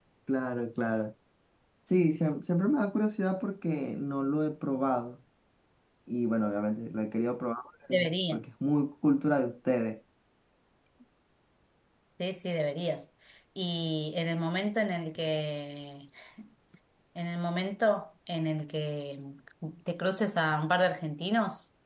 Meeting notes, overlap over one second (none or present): none